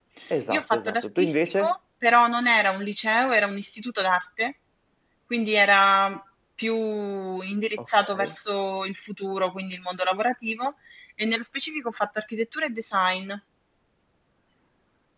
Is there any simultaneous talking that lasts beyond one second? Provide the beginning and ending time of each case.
0.5-1.7

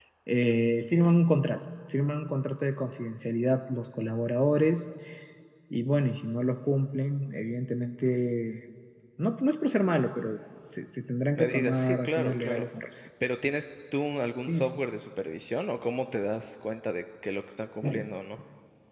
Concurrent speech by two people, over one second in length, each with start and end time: 11.4-12.7

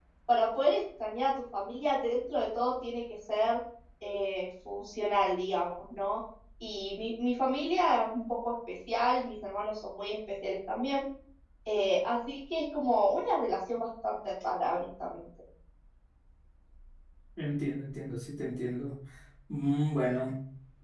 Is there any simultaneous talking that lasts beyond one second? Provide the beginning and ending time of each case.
none

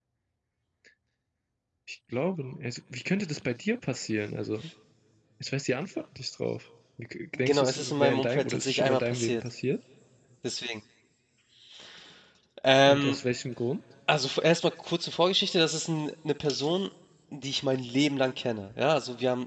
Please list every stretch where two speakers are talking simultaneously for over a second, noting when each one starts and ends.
7.4-9.5

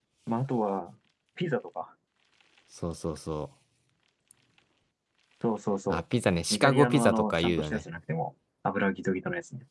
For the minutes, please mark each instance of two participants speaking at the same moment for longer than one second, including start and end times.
6.5-7.8

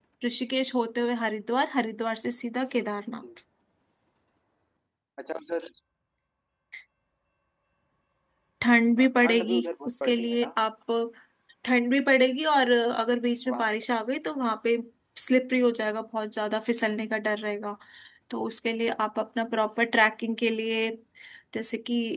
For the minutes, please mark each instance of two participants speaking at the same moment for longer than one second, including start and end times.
9.0-10.5

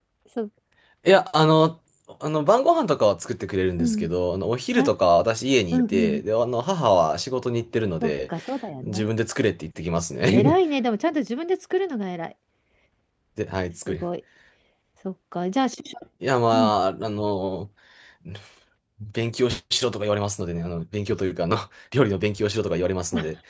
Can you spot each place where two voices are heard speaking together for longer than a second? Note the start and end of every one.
none

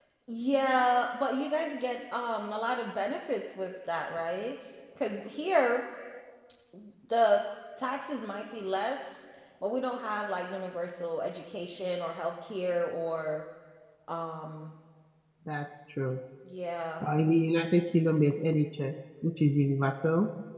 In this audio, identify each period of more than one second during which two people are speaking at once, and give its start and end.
none

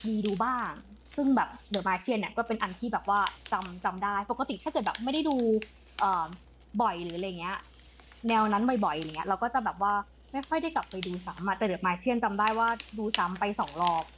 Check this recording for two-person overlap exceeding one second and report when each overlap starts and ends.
none

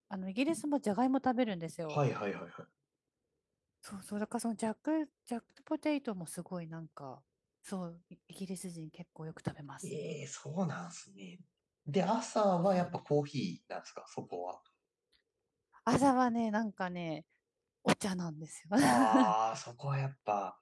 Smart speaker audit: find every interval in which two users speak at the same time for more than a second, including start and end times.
none

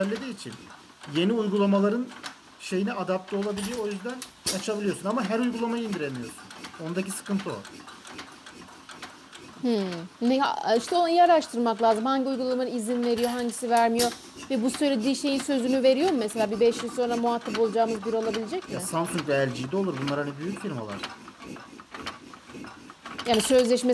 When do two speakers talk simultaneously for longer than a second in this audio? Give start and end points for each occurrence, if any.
none

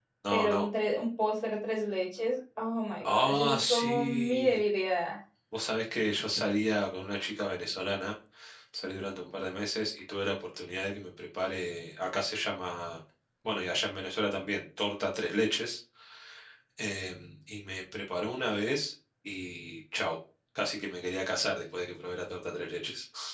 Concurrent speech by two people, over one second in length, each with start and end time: 3.0-4.6

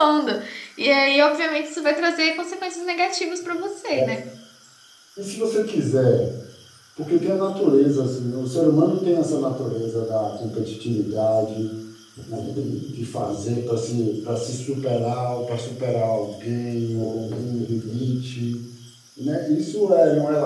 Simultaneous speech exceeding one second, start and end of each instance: none

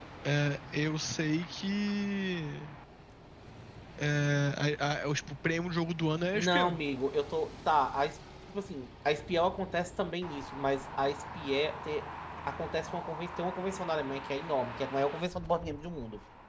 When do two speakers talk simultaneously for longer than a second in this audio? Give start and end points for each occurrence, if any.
none

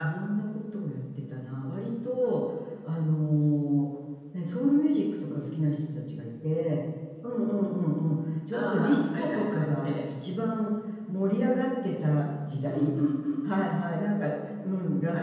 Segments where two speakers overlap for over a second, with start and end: 8.5-9.8

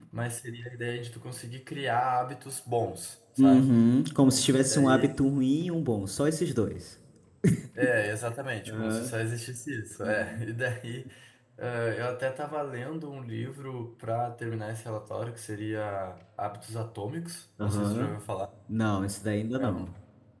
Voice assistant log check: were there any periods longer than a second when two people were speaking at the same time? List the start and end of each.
none

